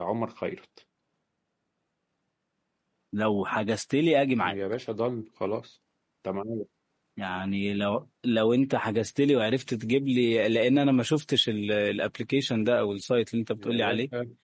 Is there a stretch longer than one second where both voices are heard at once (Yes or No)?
No